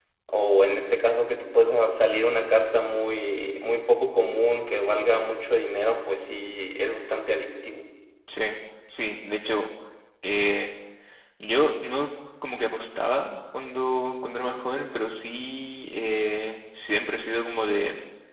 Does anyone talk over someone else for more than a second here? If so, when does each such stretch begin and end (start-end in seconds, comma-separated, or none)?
none